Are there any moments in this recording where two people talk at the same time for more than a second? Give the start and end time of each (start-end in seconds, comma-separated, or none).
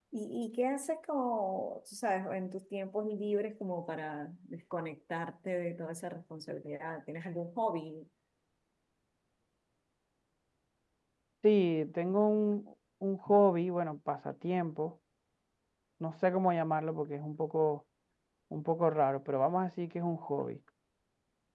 none